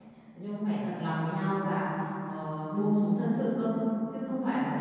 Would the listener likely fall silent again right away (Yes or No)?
Yes